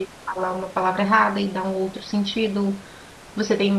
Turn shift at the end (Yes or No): No